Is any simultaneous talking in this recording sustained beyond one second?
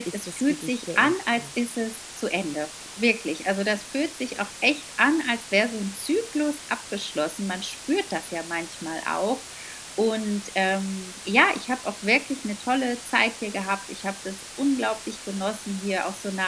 Yes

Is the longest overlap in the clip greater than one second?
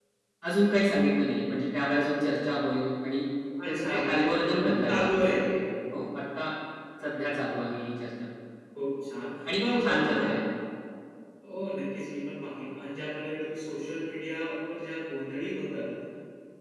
Yes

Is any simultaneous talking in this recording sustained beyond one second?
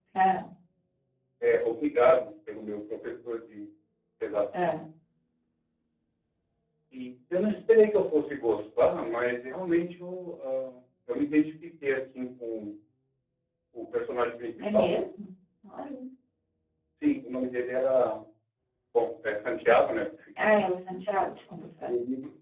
No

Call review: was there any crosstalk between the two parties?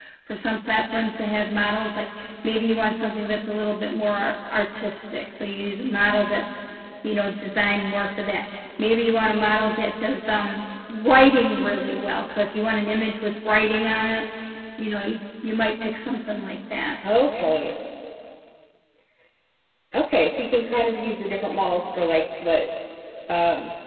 No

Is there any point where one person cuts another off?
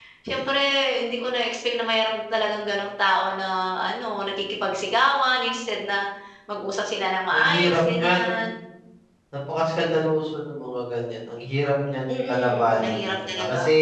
Yes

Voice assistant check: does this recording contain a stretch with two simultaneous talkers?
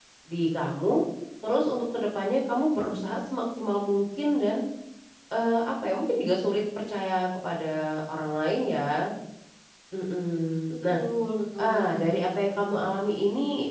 Yes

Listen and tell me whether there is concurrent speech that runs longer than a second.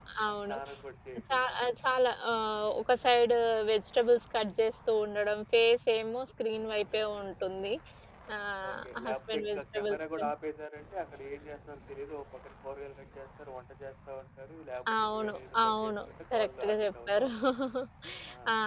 Yes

